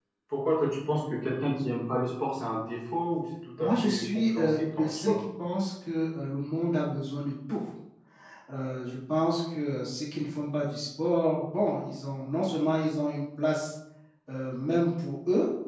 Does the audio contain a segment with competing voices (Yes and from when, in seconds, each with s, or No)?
Yes, from 3.6 s